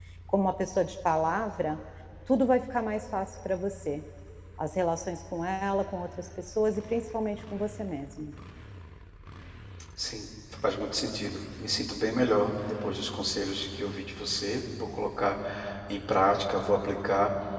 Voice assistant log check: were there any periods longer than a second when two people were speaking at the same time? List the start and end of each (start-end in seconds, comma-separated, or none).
none